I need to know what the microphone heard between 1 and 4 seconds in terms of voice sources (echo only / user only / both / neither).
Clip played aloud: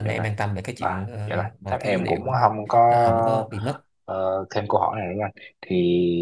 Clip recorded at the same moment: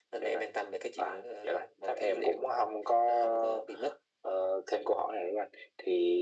echo only